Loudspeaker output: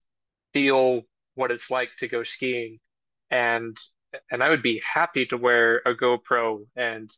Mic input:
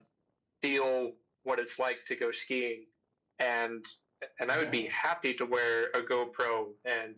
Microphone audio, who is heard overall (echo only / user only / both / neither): both